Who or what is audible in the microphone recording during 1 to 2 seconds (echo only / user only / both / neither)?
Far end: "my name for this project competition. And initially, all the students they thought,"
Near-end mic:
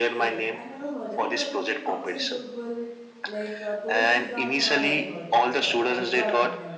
both